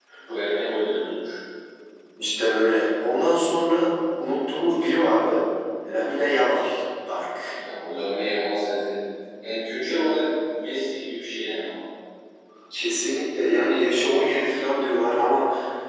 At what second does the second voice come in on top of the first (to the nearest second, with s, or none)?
none